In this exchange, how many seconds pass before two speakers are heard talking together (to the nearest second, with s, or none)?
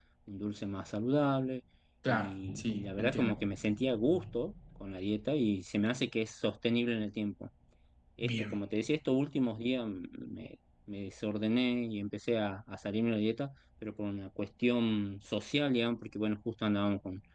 2 s